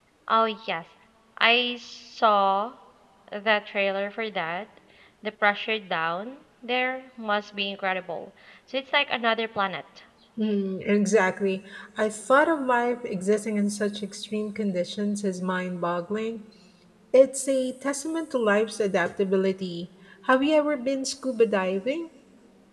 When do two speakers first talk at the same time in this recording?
none

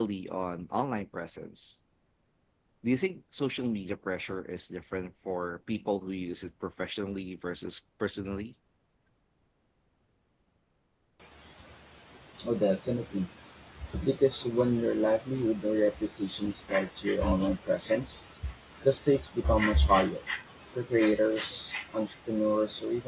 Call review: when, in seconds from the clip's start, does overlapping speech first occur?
none

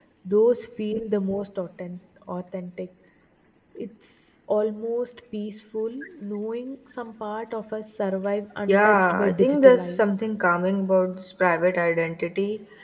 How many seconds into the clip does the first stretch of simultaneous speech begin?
8.7 s

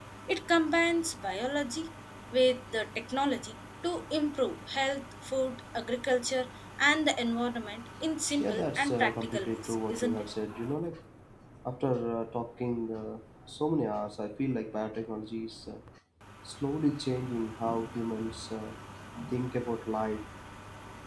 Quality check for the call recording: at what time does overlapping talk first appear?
8.4 s

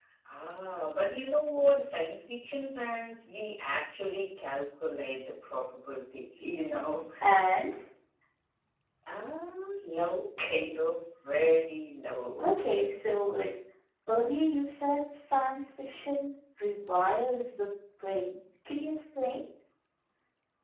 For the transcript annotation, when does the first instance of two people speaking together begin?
none

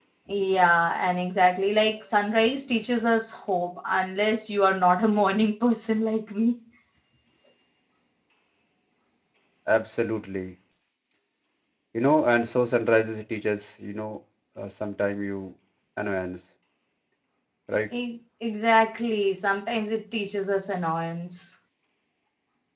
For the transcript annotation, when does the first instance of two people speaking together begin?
none

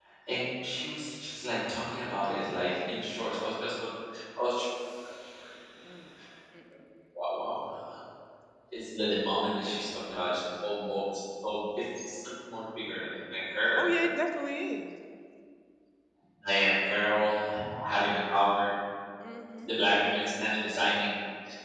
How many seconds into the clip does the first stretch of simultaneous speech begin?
none

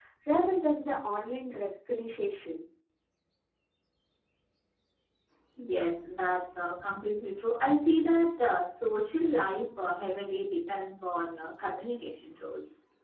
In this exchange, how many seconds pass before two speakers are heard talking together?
none

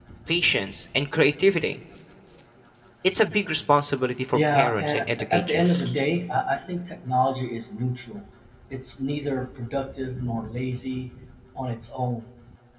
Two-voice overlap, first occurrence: 4.3 s

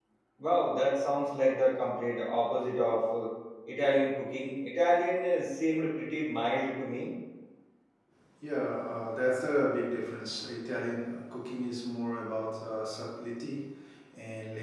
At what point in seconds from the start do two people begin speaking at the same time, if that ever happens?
none

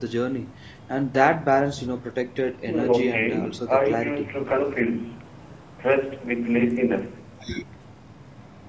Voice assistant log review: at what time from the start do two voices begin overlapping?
2.7 s

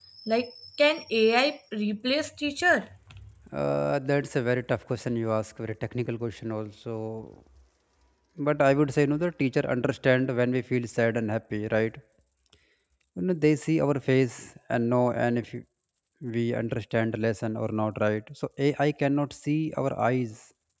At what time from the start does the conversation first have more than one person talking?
none

